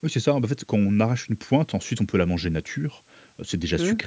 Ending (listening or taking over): listening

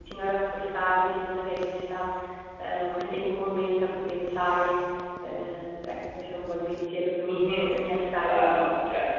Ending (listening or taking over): taking over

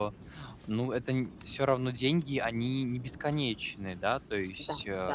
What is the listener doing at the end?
taking over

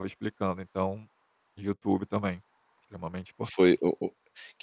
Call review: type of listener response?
taking over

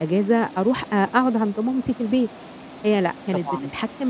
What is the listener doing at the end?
listening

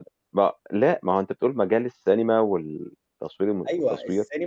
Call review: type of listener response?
taking over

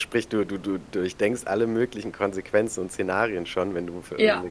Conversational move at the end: listening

